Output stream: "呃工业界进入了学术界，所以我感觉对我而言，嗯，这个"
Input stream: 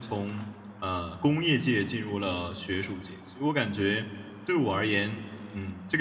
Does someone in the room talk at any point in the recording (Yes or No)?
No